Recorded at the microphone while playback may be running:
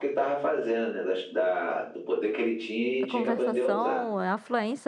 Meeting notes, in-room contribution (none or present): present